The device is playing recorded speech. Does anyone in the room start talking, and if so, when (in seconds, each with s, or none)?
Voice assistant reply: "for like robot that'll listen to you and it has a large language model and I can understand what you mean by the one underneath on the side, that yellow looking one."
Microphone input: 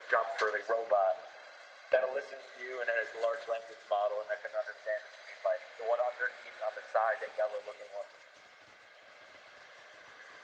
none